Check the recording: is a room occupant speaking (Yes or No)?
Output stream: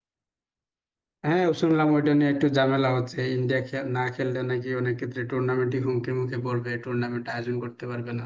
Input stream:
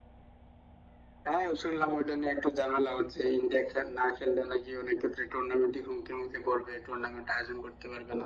No